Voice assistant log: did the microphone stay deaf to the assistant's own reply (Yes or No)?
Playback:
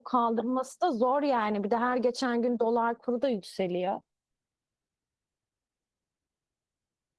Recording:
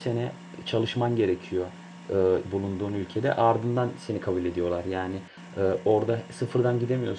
Yes